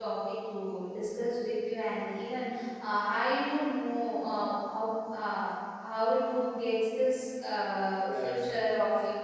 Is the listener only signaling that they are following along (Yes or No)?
Yes